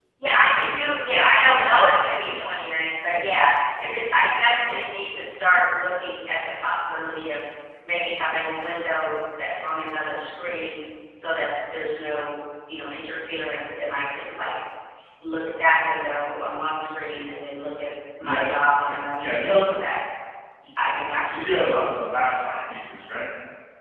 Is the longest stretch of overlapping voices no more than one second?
No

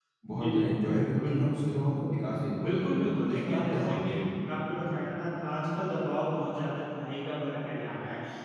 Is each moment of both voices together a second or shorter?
No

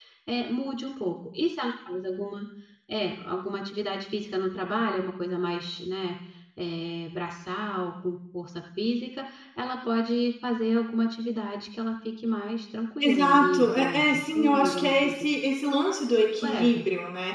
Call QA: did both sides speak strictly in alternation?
No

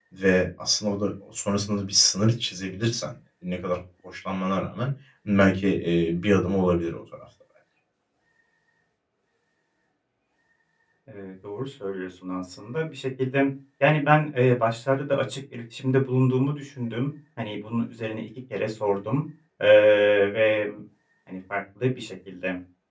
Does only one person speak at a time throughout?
Yes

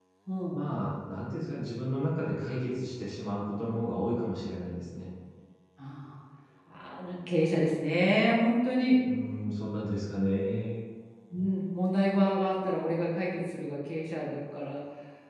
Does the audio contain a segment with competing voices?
No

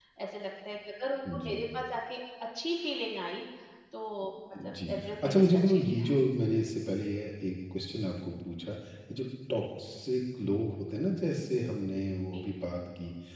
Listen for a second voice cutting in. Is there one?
Yes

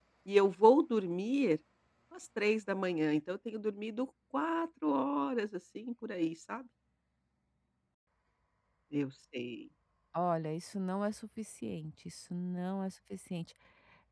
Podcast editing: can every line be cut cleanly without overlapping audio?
Yes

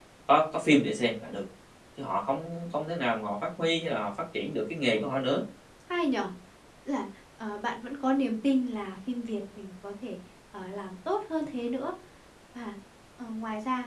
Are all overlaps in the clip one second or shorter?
Yes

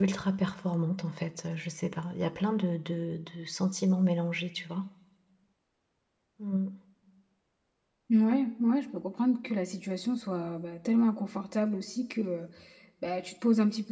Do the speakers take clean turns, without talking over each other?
Yes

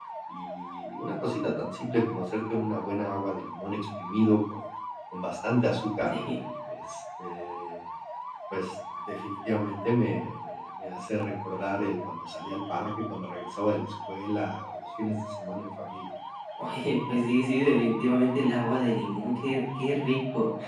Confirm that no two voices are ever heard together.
Yes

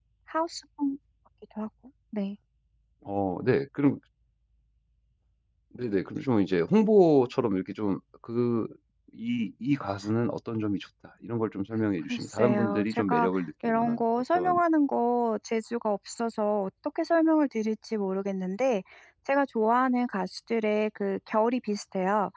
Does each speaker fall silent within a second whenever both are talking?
No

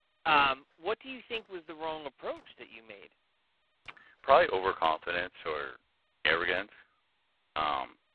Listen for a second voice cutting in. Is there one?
No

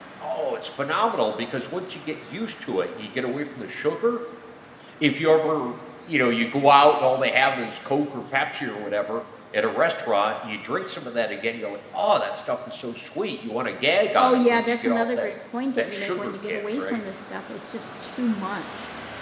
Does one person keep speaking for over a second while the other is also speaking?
Yes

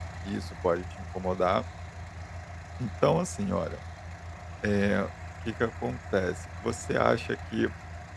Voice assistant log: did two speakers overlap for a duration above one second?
No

